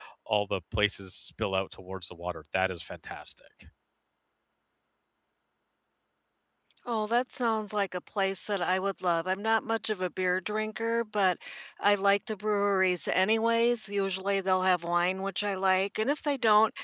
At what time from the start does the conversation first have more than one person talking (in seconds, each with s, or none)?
none